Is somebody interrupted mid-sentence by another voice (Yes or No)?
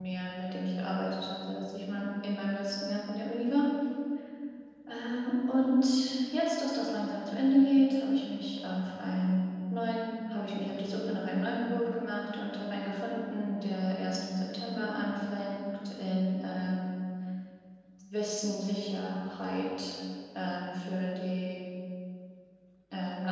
No